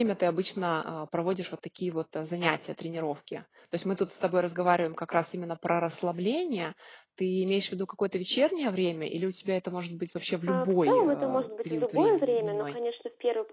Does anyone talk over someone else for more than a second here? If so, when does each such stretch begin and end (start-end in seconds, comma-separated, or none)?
10.5-12.7